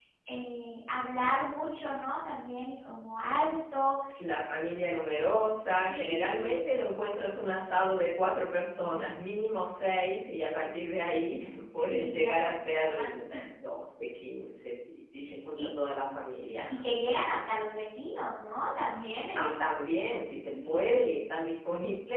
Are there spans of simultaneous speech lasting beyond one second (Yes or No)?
Yes